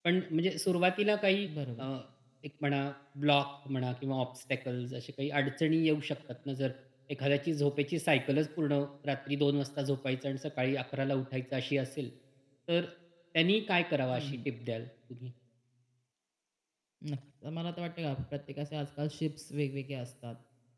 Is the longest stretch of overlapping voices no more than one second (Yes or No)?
Yes